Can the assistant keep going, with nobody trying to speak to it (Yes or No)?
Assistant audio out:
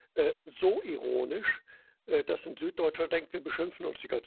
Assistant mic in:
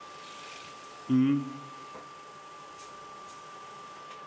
No